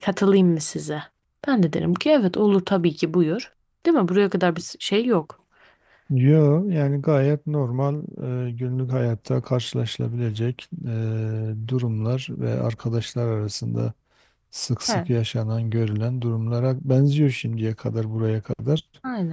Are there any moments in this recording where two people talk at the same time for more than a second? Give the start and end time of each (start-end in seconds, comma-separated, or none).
none